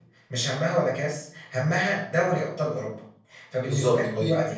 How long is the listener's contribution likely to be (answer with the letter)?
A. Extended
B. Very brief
B